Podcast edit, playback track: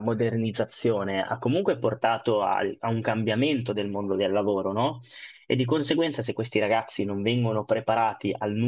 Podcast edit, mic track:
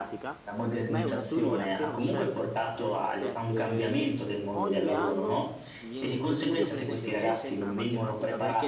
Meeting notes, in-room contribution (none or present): present